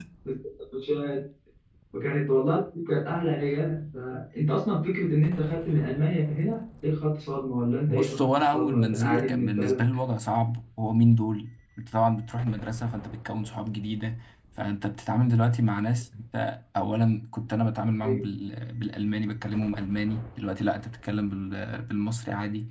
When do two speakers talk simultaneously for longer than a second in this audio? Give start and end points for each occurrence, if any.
7.9-9.8

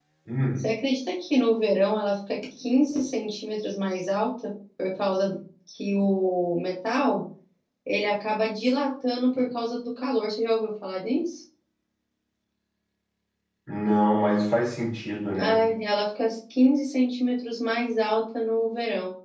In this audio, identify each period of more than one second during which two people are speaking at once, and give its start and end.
none

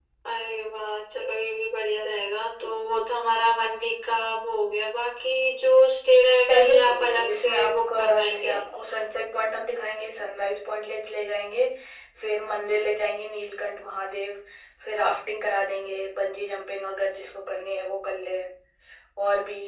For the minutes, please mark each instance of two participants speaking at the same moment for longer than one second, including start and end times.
6.5-8.5

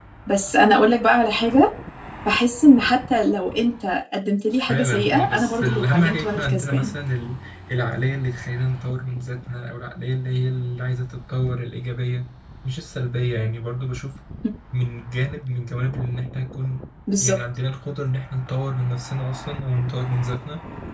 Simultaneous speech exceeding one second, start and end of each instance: 4.7-6.9

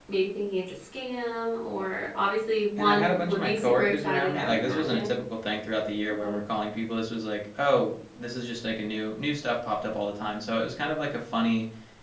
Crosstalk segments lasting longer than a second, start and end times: 2.8-5.1

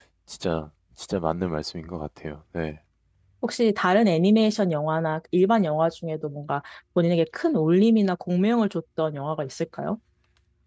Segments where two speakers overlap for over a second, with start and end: none

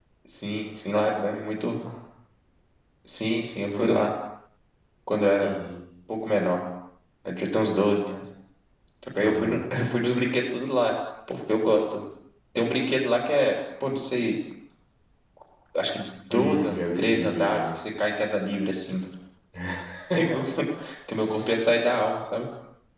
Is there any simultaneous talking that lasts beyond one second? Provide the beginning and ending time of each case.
16.3-17.8

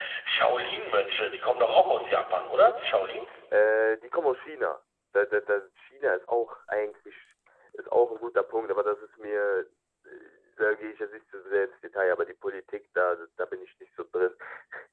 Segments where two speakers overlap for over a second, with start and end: none

